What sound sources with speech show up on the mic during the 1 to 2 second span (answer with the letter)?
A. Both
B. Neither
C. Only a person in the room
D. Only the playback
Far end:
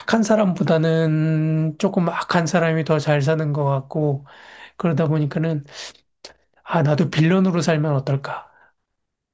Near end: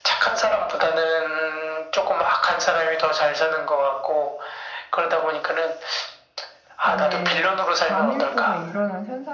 D